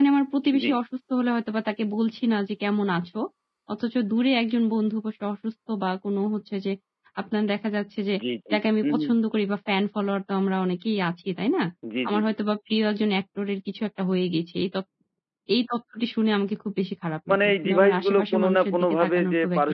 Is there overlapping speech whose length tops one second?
Yes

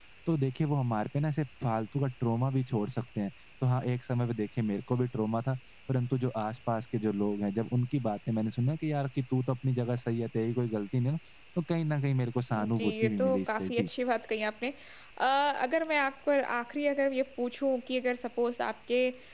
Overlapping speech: Yes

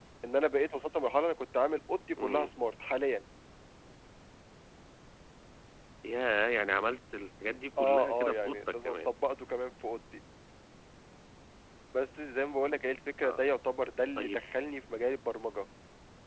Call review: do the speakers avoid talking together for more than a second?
No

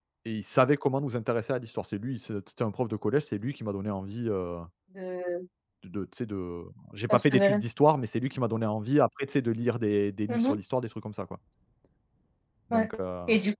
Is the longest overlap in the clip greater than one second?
No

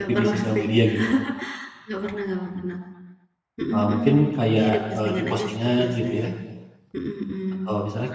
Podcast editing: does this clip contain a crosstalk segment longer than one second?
Yes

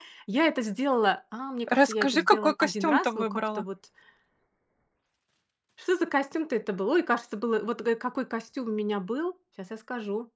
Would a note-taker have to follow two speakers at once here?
Yes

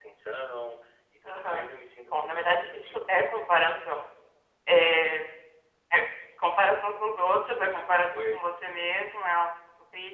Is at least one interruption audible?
Yes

